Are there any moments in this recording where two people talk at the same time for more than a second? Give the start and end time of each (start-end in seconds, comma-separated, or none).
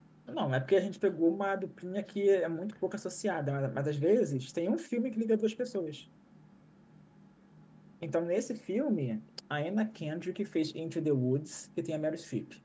none